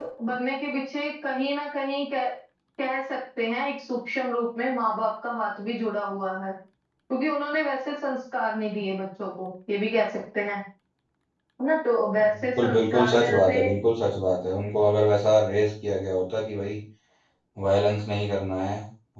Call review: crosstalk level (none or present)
present